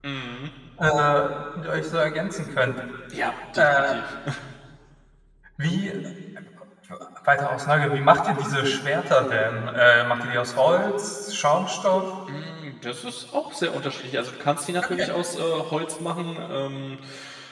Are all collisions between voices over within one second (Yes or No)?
Yes